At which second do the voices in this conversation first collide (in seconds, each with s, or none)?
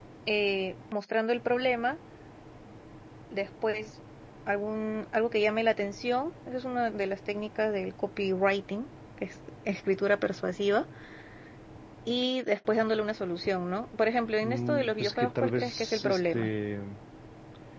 14.4 s